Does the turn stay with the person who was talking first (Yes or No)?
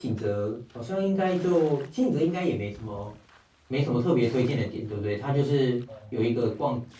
Yes